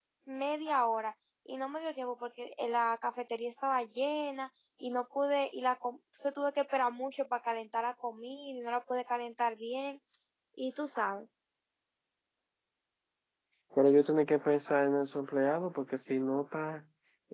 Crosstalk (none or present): none